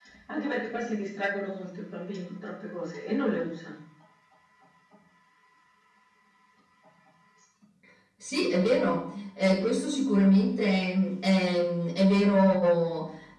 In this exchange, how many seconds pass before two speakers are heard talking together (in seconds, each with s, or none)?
none